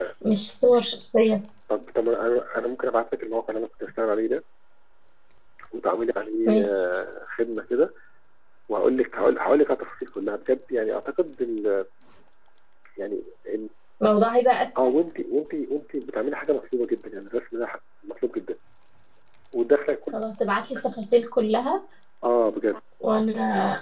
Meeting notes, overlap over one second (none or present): none